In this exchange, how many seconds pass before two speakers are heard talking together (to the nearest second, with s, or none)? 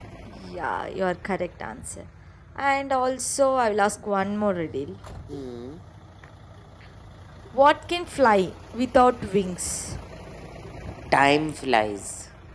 none